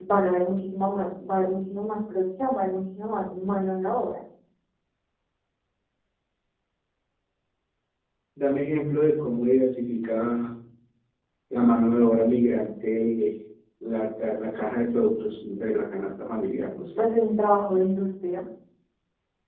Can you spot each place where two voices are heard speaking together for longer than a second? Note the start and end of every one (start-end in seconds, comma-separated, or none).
none